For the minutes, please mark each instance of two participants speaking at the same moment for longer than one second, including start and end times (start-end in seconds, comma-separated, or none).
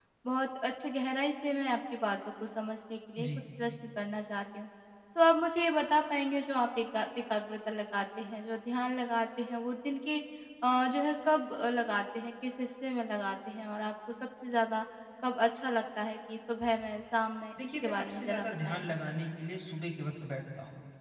17.6-18.9